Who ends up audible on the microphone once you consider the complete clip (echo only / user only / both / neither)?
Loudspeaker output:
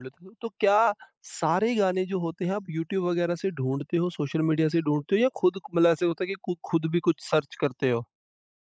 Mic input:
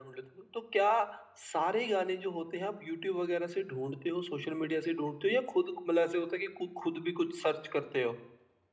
echo only